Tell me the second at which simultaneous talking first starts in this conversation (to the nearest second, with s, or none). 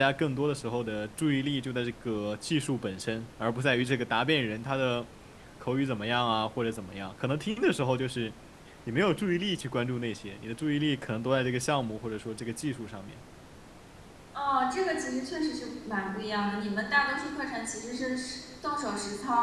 none